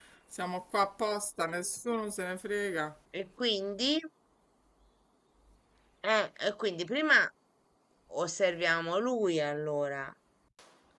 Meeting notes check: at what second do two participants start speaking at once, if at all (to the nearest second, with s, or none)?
none